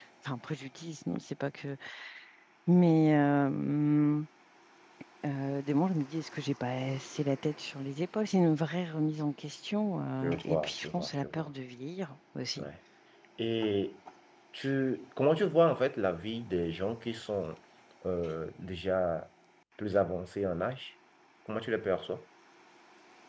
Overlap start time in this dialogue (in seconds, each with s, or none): 10.2 s